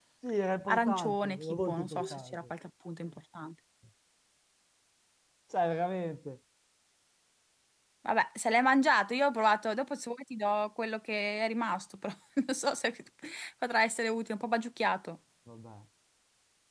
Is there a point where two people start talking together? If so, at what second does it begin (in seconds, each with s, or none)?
0.7 s